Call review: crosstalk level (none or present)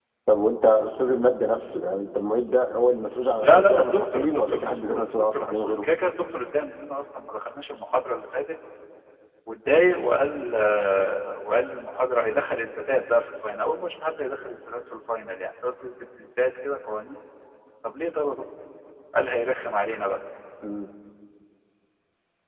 present